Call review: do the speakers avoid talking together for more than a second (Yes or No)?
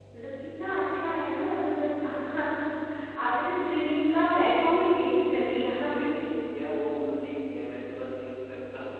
Yes